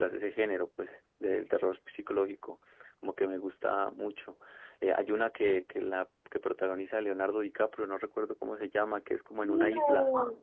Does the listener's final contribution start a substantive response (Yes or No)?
Yes